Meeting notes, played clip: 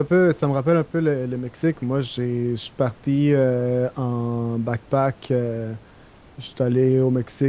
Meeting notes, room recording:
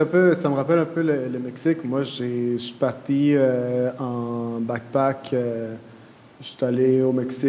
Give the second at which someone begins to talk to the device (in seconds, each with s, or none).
none